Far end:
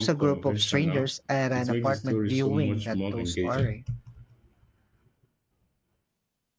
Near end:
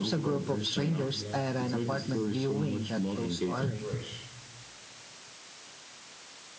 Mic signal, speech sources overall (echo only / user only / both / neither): both